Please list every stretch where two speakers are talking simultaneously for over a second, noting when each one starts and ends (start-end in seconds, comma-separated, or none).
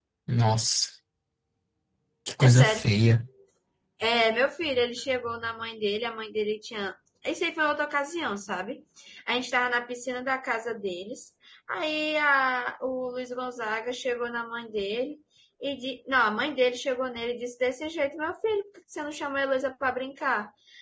none